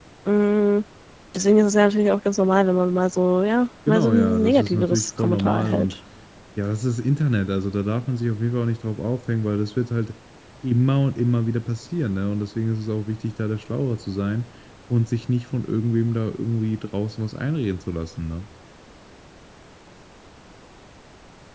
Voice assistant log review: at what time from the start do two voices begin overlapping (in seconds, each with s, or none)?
3.9 s